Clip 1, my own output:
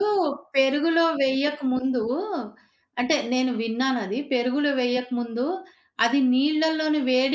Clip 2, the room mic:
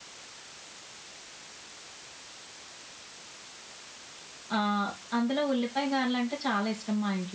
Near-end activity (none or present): present